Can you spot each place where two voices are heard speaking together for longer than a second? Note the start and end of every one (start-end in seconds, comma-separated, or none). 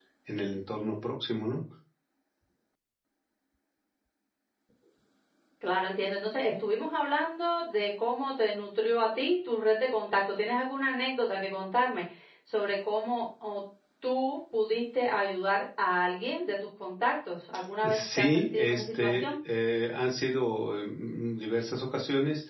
17.8-19.2